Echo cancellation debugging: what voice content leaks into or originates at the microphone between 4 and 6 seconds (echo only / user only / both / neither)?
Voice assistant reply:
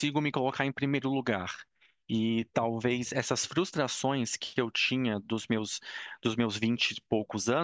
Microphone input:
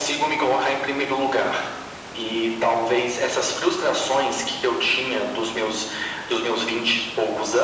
echo only